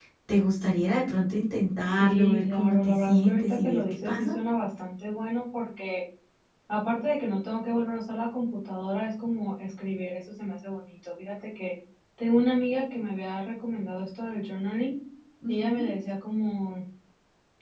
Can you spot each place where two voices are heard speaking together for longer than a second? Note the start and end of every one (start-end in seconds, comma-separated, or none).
2.0-4.3